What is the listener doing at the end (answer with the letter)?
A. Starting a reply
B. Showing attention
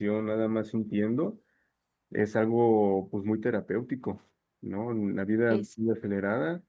B